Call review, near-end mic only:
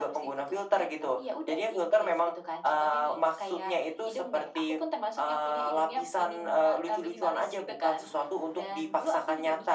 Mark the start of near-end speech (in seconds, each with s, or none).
none